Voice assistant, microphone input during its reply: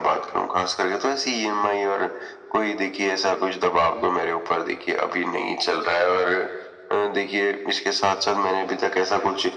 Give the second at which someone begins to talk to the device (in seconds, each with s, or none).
none